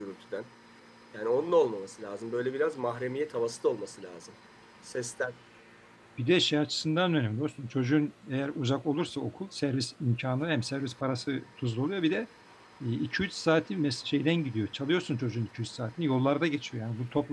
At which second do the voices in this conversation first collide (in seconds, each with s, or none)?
none